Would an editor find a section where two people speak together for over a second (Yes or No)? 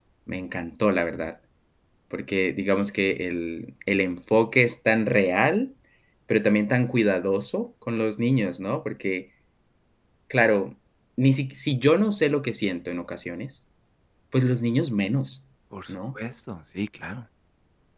No